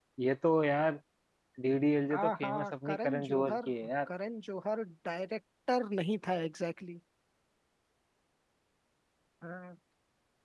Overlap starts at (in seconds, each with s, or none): 2.2 s